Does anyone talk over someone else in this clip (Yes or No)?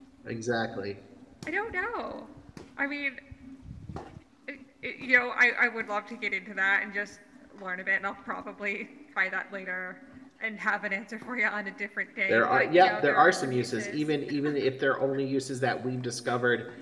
Yes